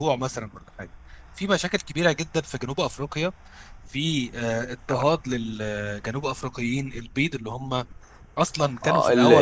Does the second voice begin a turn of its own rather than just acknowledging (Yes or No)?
Yes